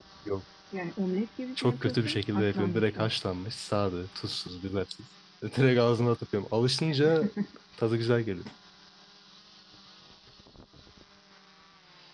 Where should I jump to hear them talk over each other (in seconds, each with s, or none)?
1.6 s